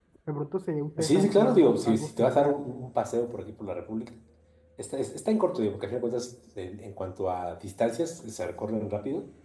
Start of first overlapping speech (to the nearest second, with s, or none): 1 s